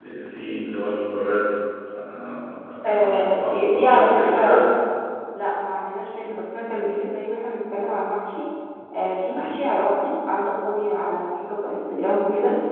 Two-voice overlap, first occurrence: 2.8 s

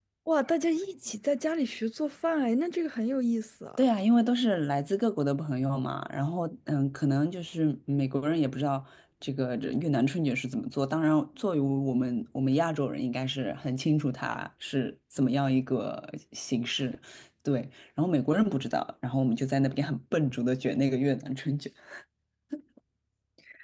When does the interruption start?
none

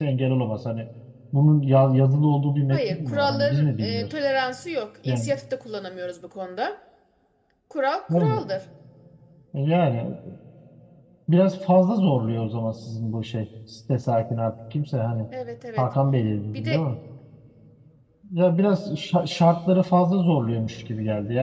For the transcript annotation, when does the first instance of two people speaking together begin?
2.7 s

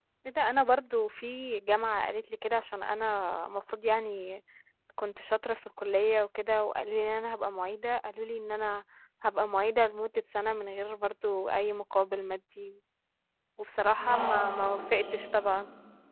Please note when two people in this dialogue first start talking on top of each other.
13.9 s

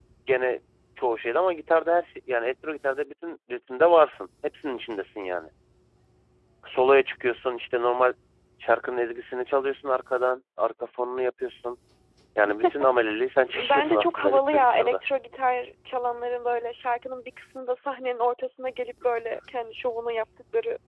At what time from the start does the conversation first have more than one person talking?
13.6 s

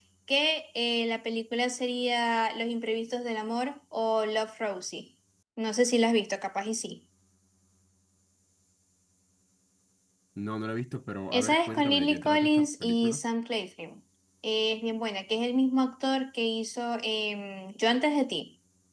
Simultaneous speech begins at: 11.3 s

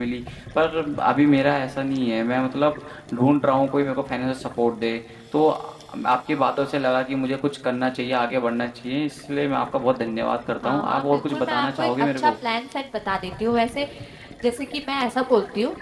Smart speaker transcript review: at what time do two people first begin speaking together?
10.6 s

